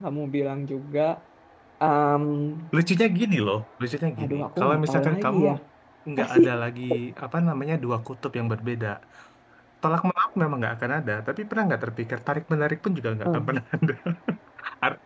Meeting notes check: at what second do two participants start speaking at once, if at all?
4.2 s

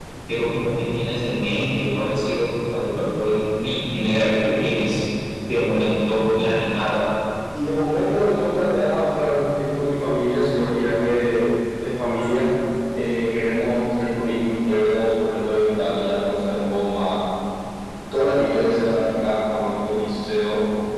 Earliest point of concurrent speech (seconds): none

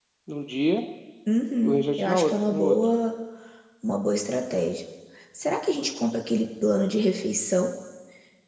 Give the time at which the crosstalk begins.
1.6 s

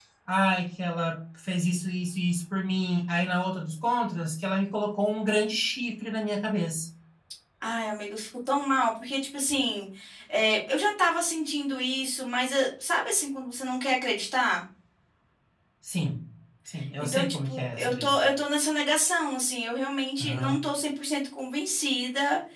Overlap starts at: 17.0 s

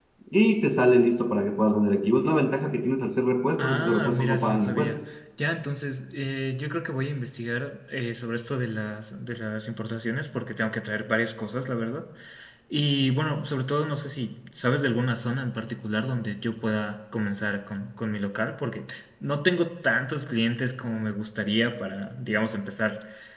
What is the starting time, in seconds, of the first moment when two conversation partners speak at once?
3.6 s

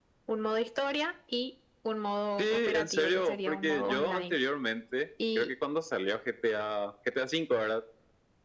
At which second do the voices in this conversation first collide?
2.4 s

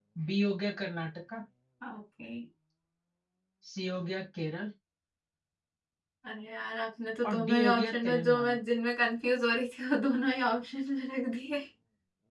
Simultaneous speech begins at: 7.2 s

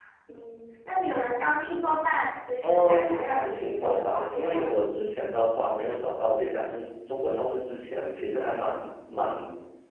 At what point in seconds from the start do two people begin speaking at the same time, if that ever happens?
2.6 s

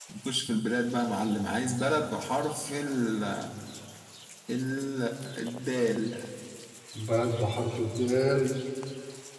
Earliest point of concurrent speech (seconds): none

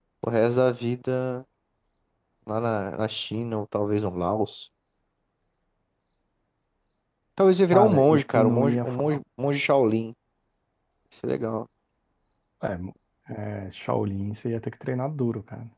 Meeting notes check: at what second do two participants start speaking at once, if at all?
7.7 s

